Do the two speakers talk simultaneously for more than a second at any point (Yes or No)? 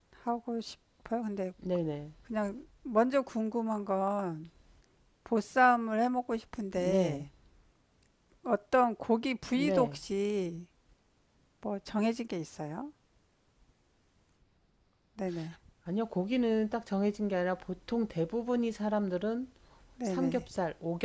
No